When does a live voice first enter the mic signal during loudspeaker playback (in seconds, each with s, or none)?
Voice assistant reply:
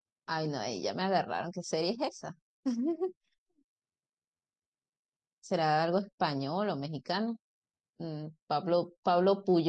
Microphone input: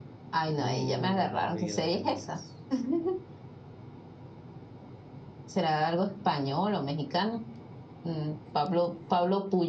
0.6 s